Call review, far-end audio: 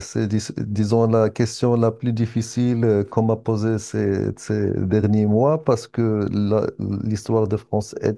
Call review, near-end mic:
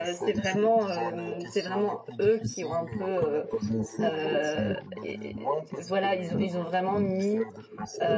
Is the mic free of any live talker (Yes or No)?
No